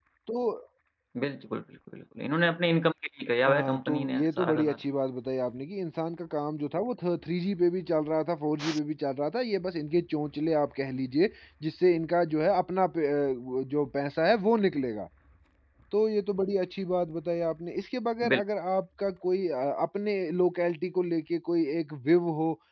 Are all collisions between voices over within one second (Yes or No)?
No